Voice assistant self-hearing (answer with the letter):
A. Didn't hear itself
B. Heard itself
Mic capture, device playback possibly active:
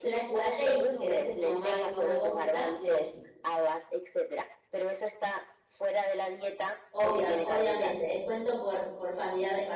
B